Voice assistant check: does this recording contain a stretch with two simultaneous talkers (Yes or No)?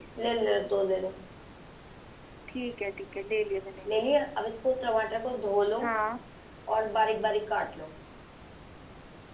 No